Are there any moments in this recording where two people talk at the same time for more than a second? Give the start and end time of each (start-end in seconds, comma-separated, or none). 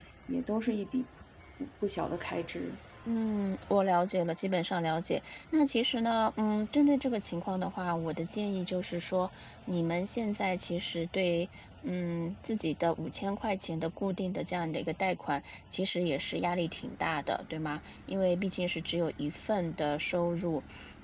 none